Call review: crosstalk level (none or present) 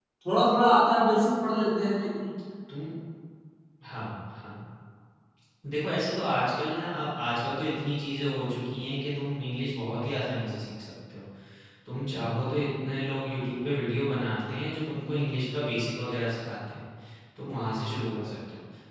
none